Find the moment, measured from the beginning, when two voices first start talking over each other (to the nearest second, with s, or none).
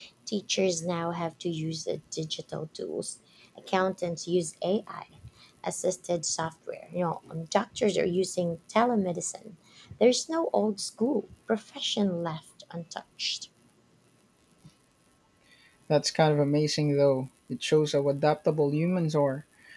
none